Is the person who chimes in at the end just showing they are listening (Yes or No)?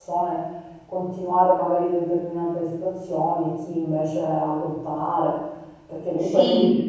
Yes